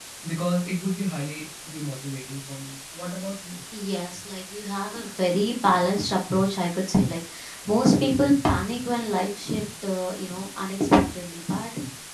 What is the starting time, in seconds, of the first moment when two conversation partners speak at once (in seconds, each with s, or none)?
none